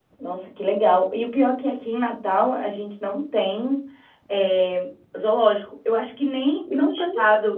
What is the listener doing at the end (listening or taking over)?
listening